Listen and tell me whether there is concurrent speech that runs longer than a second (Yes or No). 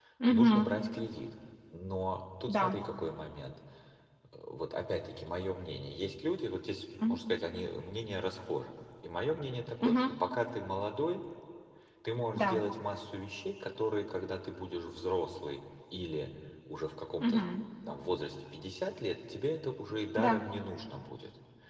No